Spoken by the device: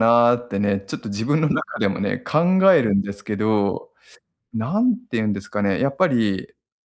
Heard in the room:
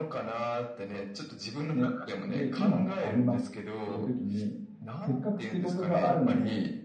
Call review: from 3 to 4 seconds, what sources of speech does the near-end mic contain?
both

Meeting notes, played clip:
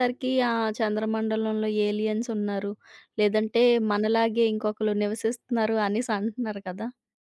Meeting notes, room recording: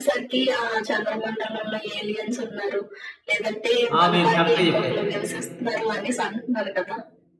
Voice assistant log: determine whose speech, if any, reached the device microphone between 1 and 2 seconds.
echo only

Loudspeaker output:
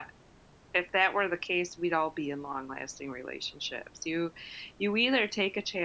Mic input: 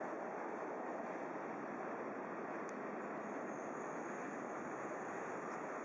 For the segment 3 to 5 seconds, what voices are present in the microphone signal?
neither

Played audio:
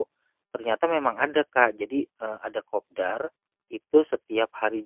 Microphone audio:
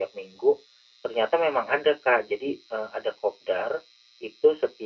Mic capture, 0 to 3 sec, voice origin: echo only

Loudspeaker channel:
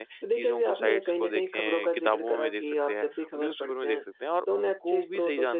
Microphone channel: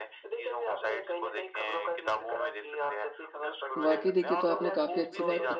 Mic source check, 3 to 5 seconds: both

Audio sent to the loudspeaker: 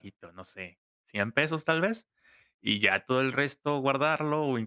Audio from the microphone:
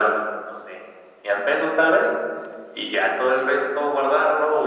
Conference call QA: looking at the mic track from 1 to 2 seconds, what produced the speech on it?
echo only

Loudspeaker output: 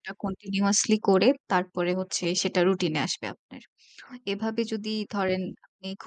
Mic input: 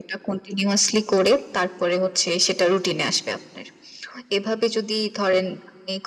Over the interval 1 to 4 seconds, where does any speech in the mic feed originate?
echo only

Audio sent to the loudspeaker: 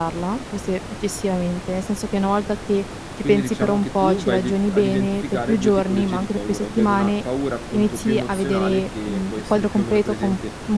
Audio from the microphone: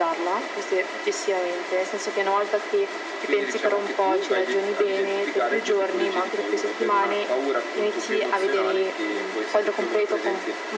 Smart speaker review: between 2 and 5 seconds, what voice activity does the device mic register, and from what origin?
echo only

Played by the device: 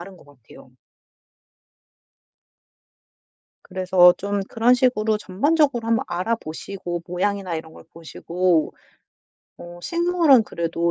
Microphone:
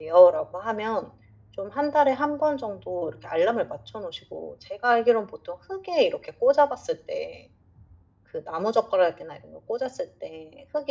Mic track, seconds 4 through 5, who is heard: user only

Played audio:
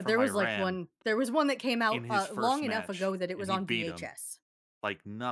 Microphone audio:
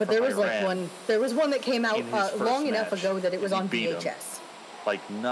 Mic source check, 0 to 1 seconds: echo only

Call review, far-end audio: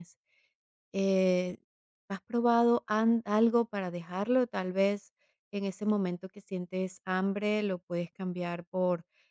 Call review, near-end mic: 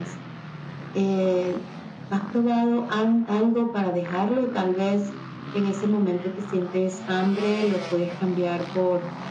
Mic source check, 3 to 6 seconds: echo only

